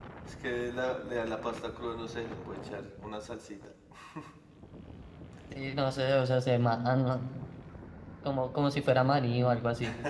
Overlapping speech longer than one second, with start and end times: none

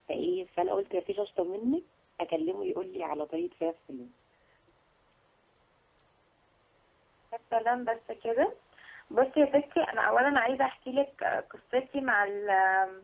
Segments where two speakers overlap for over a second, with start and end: none

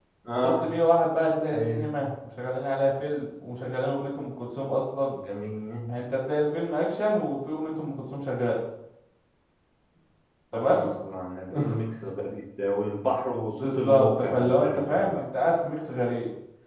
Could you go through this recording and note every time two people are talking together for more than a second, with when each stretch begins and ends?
13.6-15.2

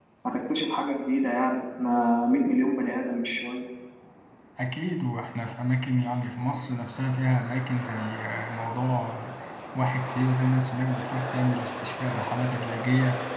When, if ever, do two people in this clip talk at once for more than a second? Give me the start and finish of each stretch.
none

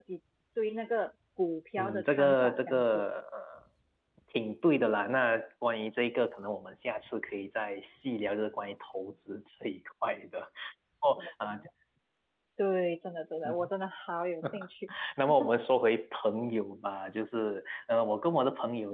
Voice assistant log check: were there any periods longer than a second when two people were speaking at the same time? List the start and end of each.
1.8-3.0

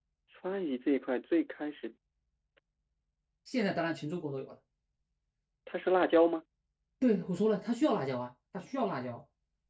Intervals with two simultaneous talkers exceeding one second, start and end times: none

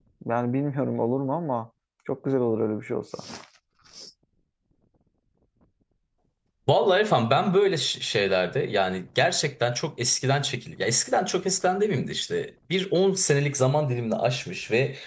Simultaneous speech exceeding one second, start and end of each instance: none

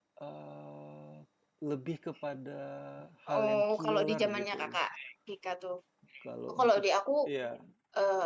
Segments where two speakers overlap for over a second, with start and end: 3.3-4.8

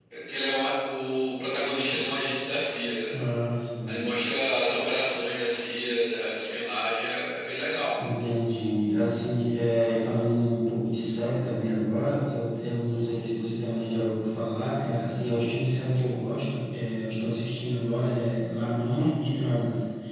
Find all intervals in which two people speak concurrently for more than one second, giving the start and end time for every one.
none

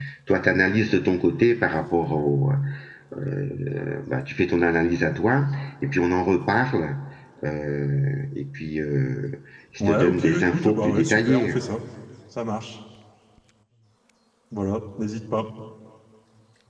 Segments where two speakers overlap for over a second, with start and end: 9.9-11.5

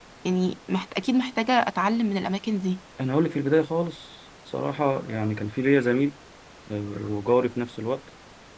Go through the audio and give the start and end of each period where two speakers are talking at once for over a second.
none

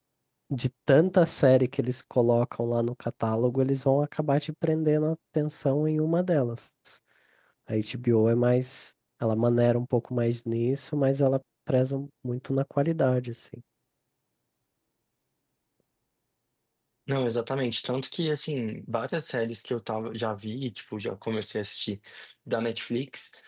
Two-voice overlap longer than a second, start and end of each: none

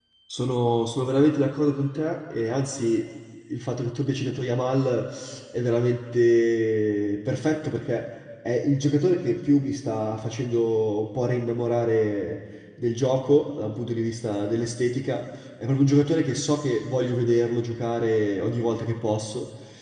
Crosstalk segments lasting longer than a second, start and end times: none

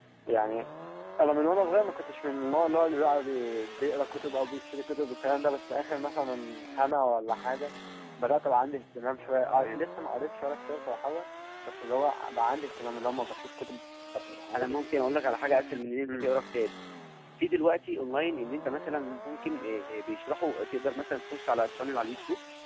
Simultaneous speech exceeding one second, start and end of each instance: none

